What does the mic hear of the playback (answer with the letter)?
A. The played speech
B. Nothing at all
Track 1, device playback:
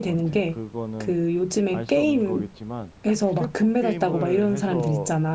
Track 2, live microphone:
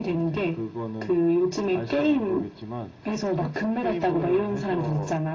A